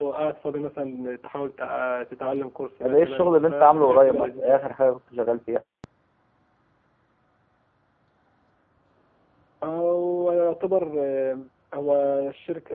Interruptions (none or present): present